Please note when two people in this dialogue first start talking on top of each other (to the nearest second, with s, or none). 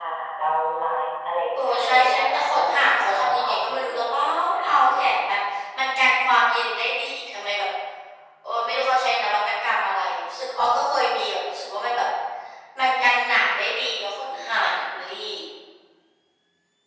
2 s